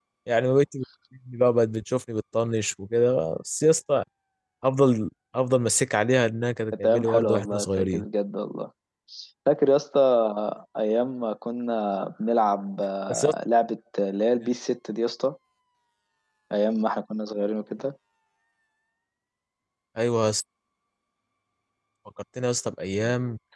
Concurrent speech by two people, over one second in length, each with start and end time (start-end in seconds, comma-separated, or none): 6.8-8.1